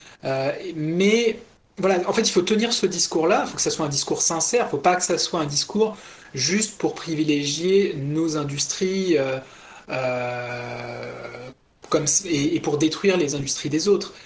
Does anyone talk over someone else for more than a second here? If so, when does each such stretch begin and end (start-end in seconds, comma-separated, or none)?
none